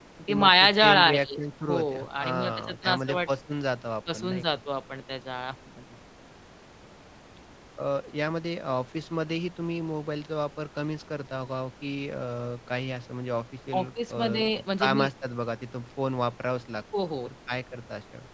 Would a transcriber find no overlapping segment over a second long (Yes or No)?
No